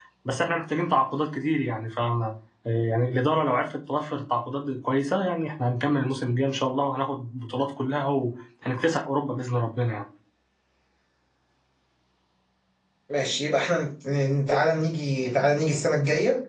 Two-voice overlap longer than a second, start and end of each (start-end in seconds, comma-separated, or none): none